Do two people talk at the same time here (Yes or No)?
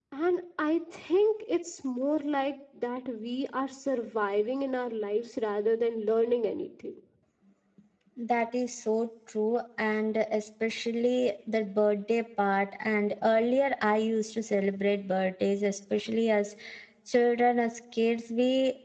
No